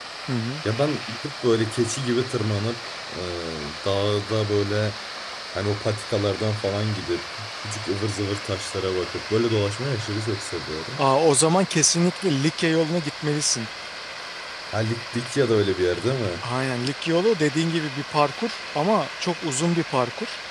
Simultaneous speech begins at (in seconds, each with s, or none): none